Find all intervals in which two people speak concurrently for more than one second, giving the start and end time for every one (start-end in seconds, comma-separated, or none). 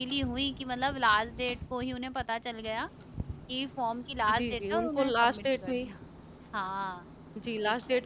4.3-5.9